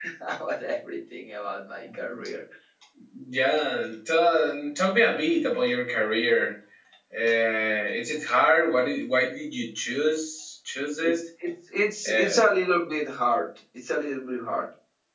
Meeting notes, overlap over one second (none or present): none